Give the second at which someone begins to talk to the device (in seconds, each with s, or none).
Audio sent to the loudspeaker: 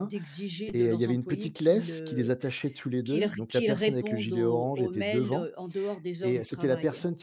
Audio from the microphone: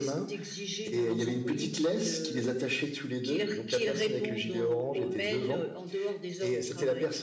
none